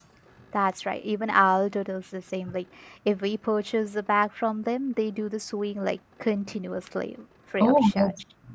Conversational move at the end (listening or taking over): taking over